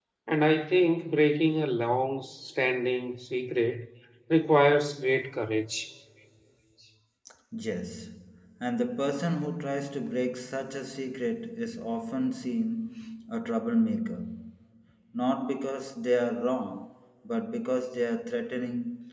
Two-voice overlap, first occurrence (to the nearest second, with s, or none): none